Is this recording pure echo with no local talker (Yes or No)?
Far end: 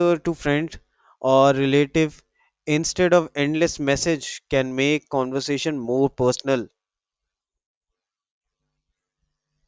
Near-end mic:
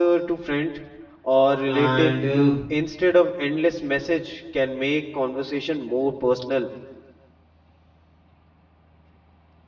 No